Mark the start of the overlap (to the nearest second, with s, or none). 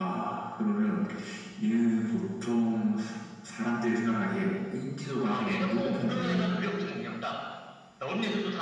5 s